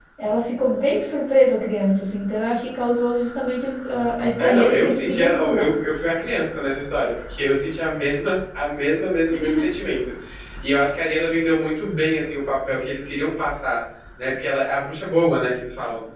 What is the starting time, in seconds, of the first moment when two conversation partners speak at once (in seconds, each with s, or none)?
4.4 s